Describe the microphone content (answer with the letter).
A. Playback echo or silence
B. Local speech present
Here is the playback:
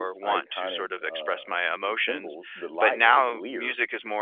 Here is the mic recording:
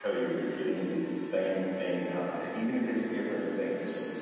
B